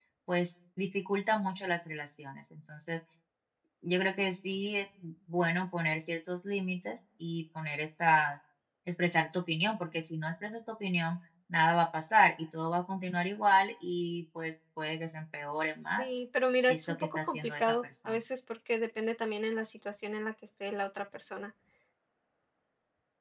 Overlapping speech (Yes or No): Yes